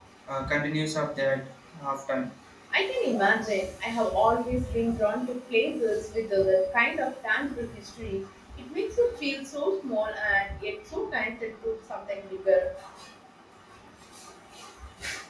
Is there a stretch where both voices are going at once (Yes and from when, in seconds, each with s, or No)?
No